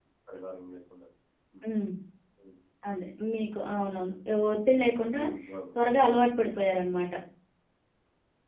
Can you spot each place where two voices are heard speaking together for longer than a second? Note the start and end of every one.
none

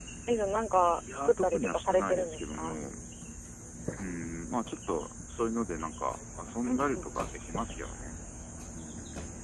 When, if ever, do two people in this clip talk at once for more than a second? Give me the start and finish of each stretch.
1.1-2.8

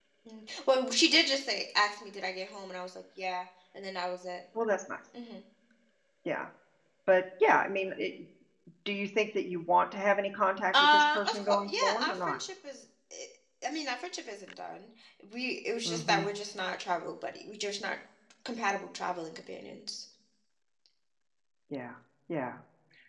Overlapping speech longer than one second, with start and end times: 10.8-12.4

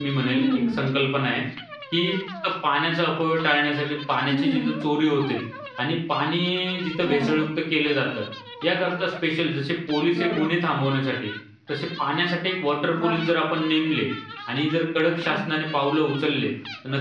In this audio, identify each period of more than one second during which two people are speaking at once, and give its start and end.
none

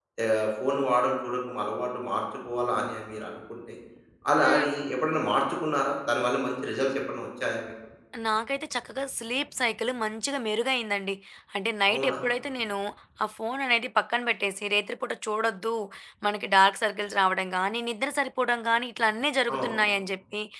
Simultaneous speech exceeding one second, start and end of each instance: none

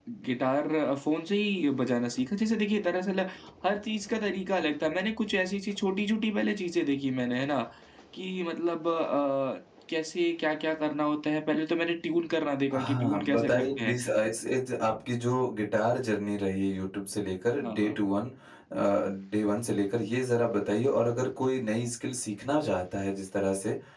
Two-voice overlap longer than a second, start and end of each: 12.7-13.9

